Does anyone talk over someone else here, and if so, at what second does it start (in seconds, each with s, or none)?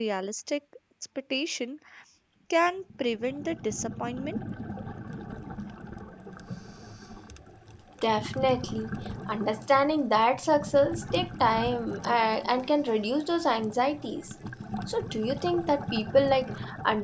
none